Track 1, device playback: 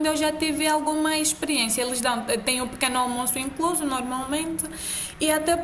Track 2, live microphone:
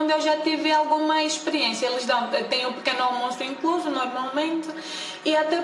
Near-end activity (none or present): none